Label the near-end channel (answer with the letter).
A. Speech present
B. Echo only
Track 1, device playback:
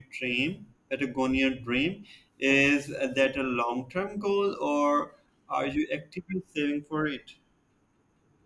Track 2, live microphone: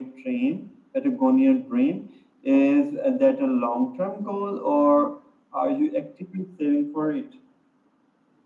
B